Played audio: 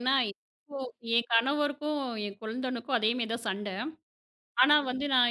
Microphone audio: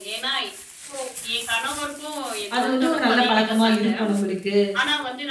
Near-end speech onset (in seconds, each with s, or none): 2.6 s